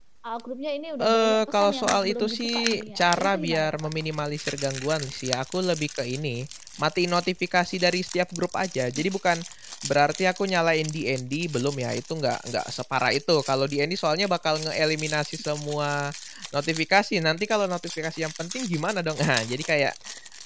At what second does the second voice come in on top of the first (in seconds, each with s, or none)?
1.0 s